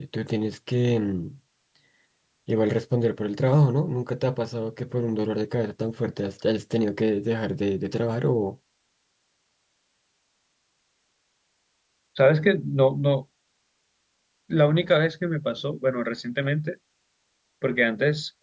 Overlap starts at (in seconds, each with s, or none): none